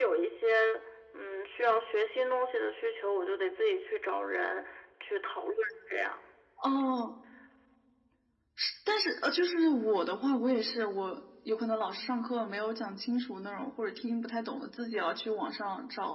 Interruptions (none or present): none